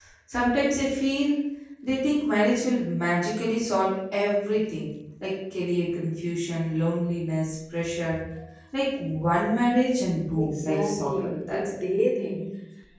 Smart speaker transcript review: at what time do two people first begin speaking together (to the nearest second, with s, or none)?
10 s